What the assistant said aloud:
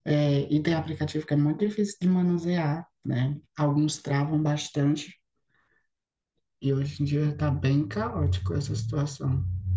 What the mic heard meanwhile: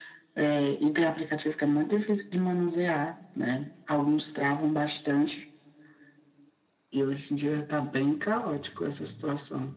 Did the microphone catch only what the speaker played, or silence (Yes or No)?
Yes